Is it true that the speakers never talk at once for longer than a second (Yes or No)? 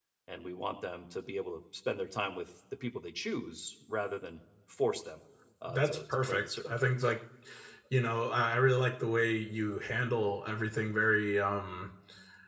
No